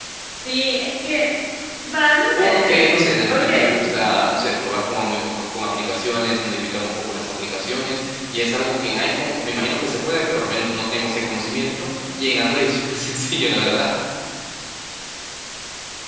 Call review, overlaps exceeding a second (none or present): present